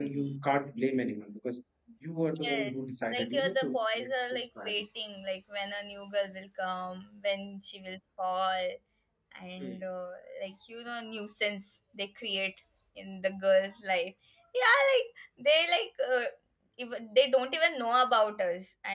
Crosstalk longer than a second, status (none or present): present